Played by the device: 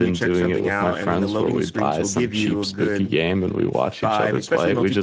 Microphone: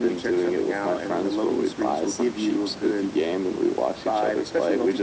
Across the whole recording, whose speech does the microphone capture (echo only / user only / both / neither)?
echo only